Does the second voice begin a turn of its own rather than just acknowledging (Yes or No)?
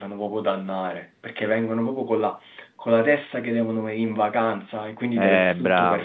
Yes